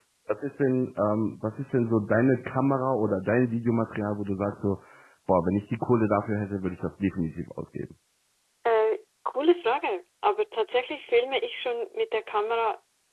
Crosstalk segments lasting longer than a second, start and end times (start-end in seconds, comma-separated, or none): none